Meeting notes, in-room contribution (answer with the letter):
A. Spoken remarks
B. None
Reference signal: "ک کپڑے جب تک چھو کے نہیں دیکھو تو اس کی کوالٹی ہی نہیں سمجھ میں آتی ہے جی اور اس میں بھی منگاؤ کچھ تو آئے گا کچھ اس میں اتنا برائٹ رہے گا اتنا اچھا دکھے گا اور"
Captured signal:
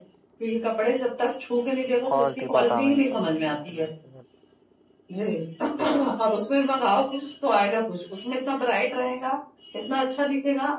A